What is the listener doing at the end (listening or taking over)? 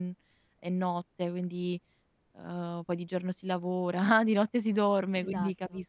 listening